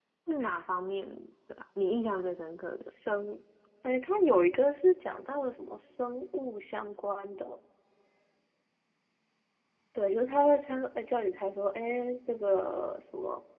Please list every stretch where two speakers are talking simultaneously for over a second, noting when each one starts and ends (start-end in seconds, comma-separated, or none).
none